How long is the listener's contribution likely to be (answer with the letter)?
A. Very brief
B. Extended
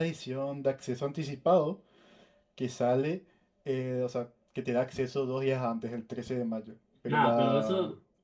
B